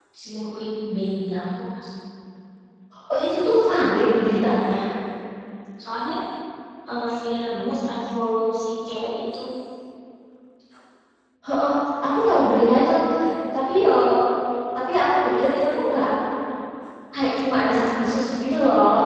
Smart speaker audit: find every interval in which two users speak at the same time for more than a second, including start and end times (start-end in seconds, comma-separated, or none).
none